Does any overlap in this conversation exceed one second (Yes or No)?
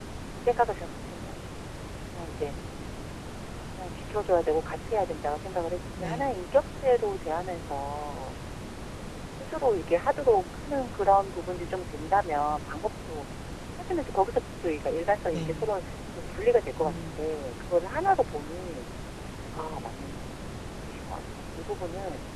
No